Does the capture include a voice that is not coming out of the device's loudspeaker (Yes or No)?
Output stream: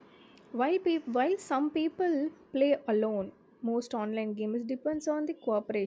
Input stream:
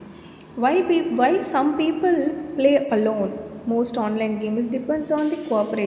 No